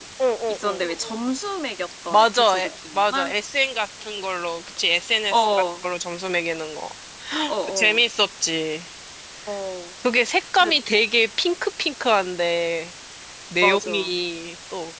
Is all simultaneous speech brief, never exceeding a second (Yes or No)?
No